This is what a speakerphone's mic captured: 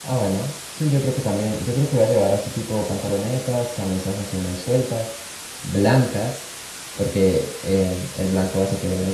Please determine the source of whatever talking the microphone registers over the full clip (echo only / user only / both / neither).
user only